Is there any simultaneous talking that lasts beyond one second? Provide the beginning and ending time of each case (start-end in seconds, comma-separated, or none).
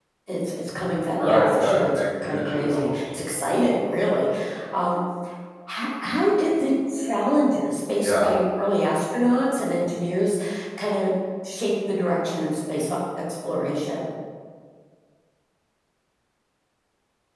1.1-3.0